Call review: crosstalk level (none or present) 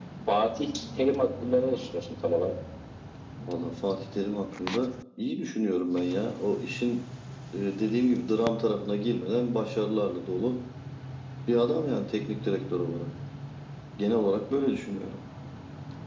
none